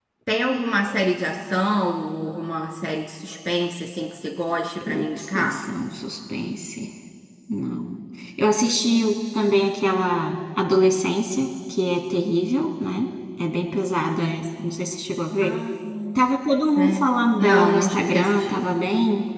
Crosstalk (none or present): present